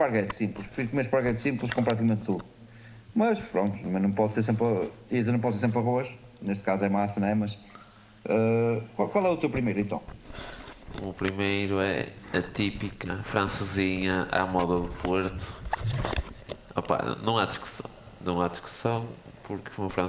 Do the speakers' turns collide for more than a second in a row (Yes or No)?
No